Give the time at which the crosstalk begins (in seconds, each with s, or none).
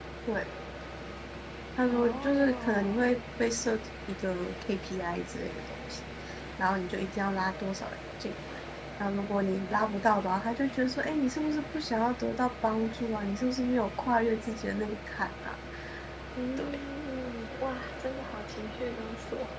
1.9 s